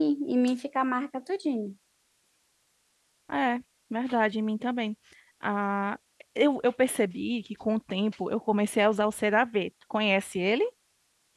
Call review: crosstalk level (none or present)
none